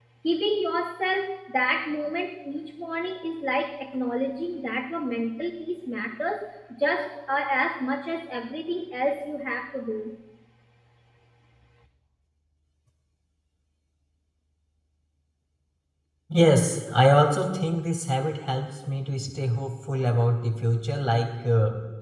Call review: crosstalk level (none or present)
none